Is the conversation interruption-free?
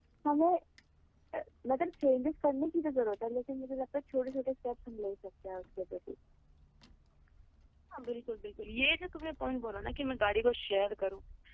Yes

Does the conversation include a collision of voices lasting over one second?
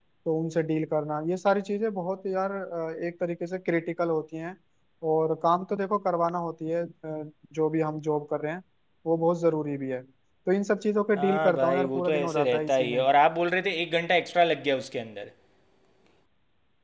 Yes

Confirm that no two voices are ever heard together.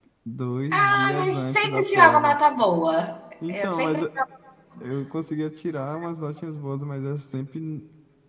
No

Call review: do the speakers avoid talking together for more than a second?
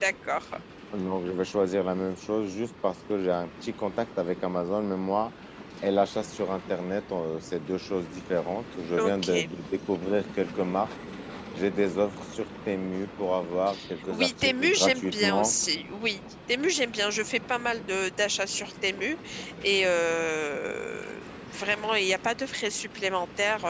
No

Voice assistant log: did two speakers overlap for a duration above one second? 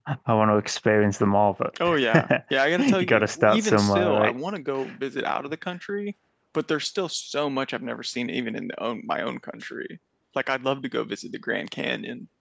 Yes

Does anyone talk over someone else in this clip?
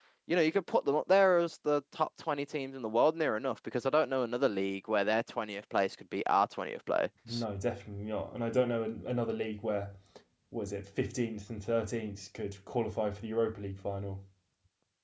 No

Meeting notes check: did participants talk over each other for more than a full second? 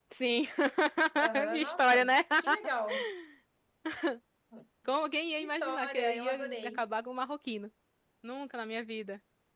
Yes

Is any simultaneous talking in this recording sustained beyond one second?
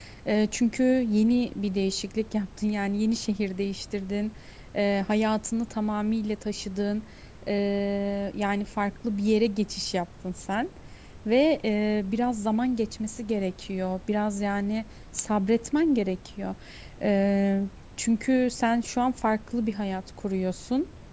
No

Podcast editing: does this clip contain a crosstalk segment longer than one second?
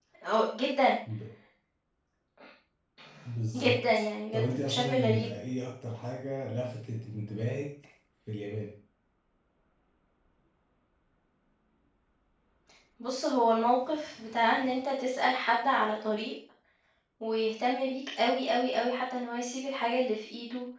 Yes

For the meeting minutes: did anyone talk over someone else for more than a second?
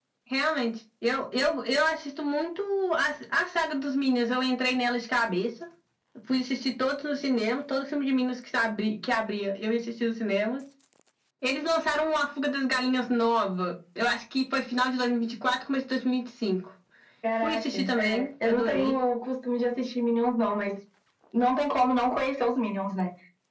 Yes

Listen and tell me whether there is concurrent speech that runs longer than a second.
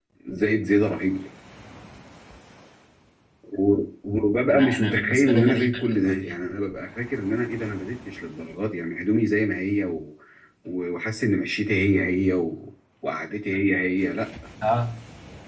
Yes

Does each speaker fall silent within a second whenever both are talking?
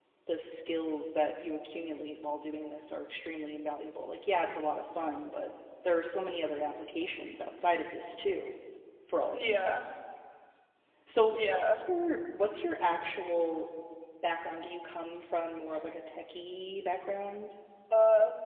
Yes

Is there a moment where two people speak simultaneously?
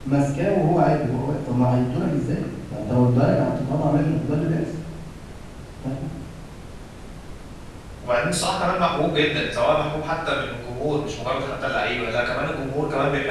No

